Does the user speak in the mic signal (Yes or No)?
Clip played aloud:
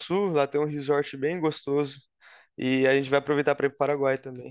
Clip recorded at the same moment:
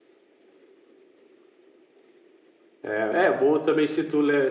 Yes